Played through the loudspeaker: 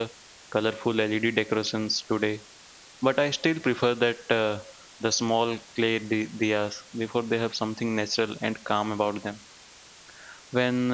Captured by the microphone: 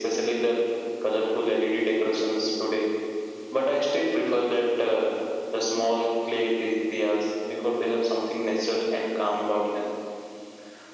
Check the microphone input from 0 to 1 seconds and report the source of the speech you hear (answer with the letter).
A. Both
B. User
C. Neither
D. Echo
D